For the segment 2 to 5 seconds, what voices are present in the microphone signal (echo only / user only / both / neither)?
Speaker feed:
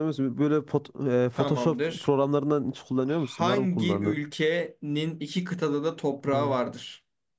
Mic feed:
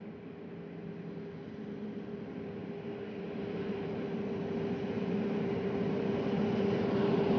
neither